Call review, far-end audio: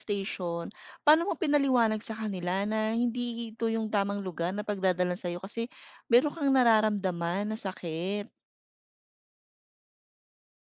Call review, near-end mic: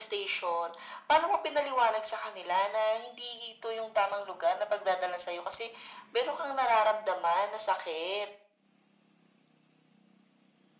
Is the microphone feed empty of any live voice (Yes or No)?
Yes